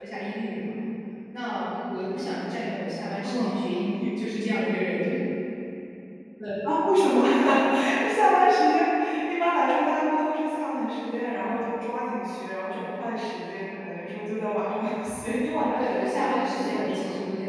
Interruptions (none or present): present